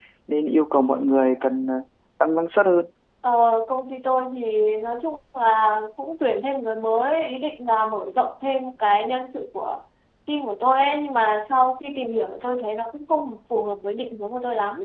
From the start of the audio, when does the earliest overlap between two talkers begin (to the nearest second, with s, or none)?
none